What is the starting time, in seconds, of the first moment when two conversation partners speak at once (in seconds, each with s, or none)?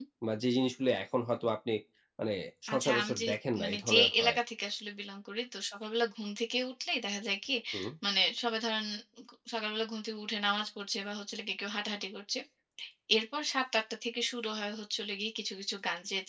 2.7 s